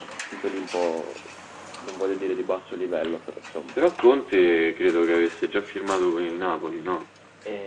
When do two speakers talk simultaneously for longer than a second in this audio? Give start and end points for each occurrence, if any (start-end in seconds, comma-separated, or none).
none